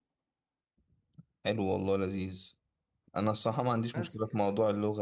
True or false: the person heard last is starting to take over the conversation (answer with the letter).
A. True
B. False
B